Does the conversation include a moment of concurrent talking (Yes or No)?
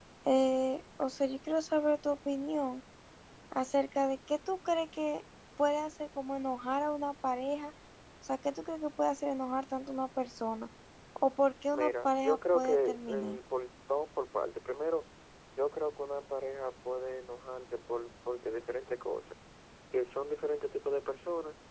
Yes